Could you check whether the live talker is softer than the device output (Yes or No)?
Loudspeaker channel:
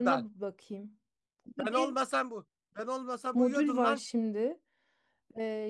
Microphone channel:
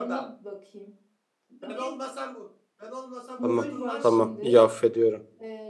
No